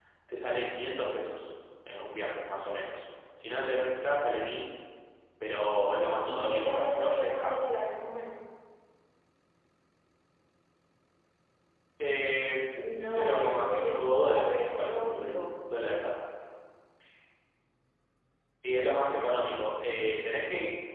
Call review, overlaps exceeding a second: present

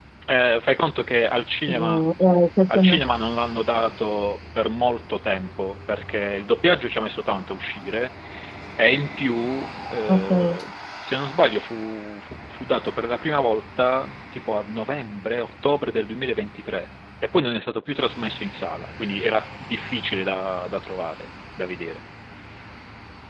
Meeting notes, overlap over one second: none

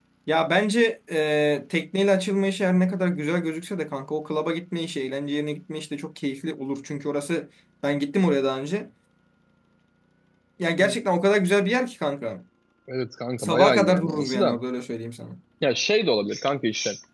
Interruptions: present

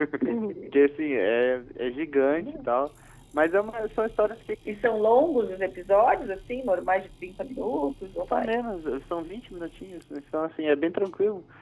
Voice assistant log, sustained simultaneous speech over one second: none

